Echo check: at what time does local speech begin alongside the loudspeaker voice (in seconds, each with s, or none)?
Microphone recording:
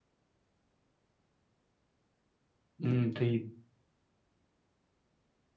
2.8 s